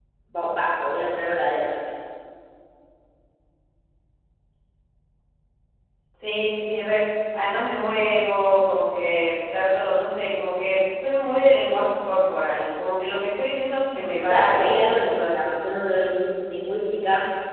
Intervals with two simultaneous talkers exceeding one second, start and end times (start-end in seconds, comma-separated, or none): 14.3-15.5